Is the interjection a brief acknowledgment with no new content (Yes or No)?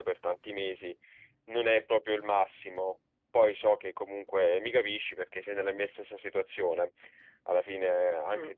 Yes